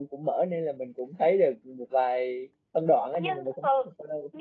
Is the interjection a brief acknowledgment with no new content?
No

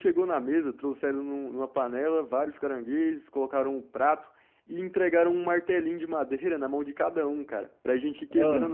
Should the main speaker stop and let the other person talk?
No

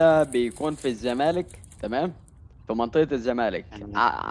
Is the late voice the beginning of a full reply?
No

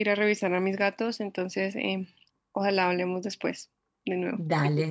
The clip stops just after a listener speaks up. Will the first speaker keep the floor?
No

